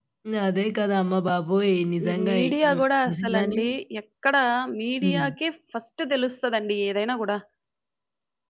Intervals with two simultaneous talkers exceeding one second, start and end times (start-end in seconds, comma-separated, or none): 2.1-3.6